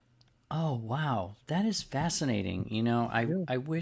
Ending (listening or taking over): listening